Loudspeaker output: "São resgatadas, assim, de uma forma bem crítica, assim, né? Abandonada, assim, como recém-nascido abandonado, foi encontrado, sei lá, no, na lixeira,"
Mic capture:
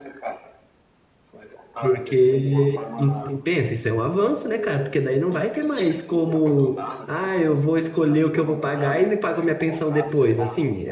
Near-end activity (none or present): present